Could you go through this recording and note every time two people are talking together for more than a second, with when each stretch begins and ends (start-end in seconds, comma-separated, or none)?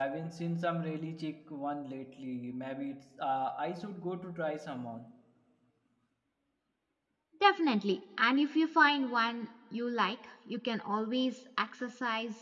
none